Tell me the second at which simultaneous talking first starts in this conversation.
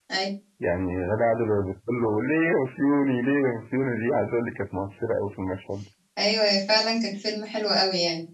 none

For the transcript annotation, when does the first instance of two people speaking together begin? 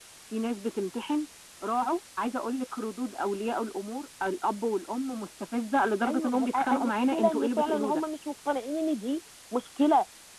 6 s

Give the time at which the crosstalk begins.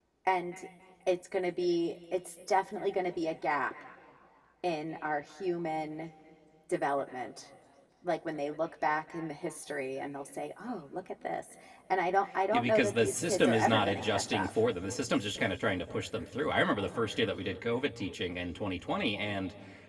13 s

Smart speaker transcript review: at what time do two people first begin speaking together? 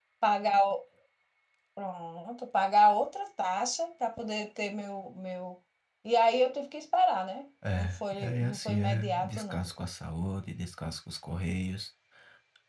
8 s

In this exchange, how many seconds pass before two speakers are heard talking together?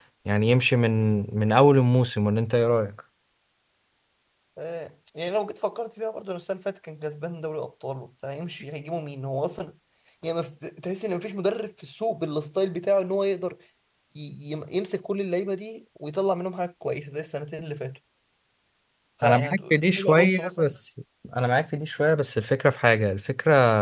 19 s

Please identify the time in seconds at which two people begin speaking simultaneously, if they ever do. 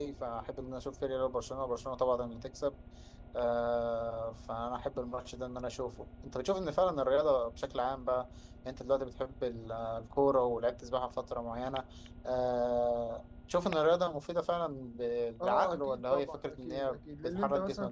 15 s

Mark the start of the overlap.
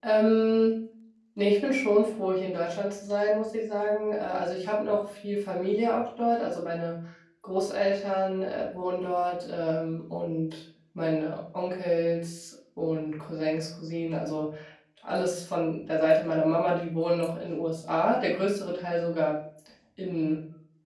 none

